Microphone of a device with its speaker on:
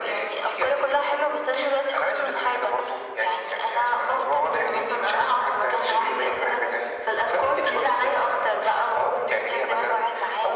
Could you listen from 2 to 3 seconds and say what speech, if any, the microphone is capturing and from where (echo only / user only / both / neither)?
echo only